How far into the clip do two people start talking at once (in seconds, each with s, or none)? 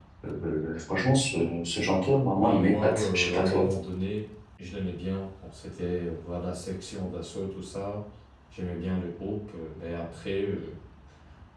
2.4 s